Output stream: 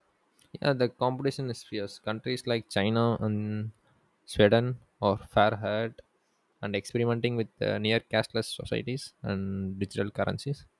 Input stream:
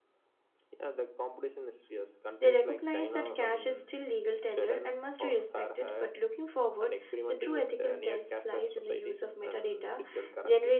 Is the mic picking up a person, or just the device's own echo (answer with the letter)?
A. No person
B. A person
B